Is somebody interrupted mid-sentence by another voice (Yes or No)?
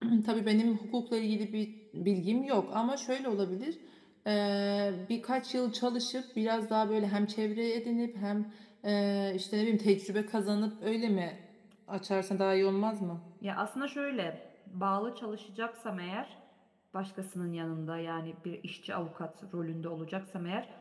No